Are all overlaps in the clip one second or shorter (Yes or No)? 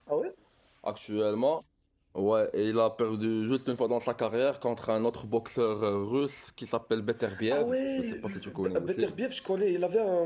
No